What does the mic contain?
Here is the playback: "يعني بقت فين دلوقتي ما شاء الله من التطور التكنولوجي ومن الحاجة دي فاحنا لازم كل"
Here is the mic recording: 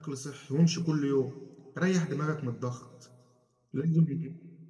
user only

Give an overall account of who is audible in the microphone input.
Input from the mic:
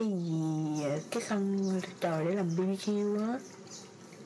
echo only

